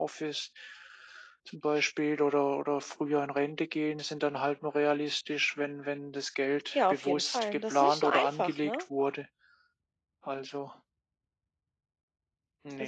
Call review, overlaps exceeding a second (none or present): present